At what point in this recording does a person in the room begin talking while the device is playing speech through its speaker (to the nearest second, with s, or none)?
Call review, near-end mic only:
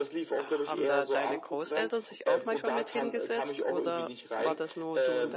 0 s